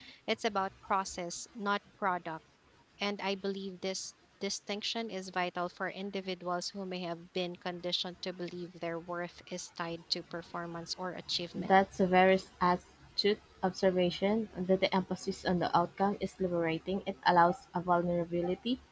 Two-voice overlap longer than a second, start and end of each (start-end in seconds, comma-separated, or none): none